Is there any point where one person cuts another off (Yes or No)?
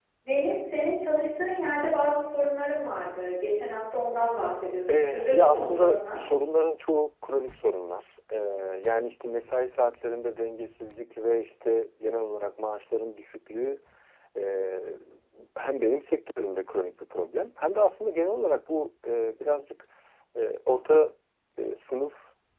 Yes